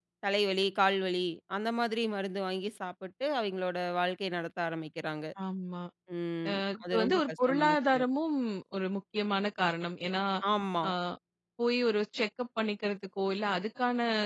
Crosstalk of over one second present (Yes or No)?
Yes